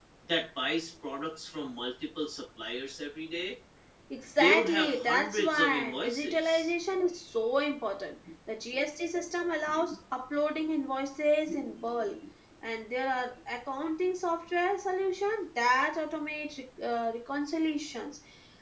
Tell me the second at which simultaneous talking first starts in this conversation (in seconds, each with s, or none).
4.4 s